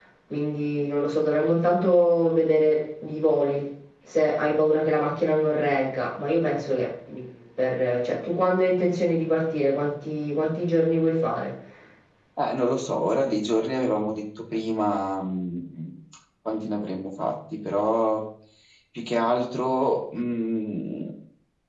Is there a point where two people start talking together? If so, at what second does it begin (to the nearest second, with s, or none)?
none